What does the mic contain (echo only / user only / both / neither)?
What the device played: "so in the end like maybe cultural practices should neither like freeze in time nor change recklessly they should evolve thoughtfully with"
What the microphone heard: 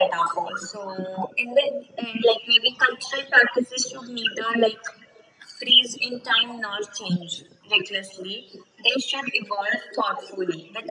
echo only